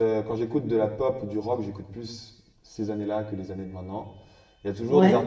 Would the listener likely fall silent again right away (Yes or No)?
Yes